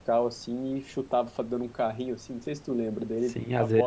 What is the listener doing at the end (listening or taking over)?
taking over